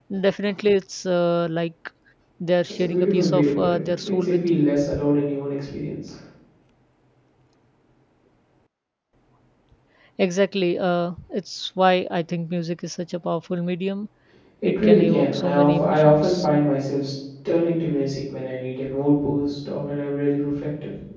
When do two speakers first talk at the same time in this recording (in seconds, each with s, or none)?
2.7 s